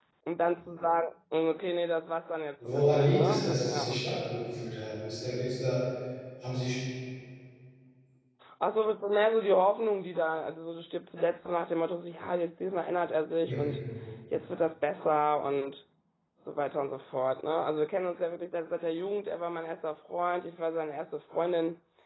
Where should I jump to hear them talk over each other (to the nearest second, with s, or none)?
3 s